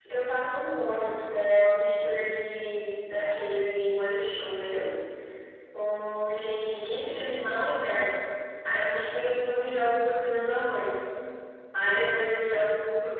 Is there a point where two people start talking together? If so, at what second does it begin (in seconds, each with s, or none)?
none